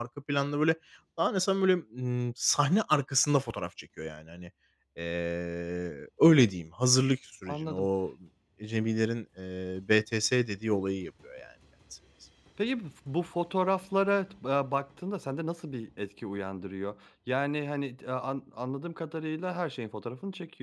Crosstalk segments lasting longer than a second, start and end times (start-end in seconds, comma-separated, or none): none